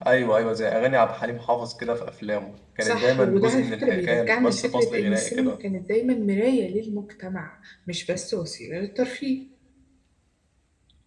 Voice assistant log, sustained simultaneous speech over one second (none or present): present